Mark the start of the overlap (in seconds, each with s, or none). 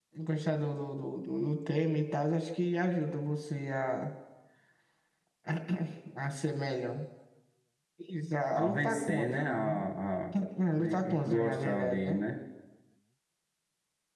8.5 s